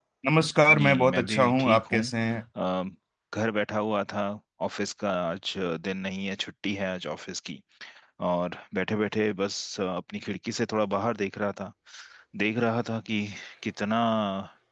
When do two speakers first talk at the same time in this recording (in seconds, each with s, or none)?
0.7 s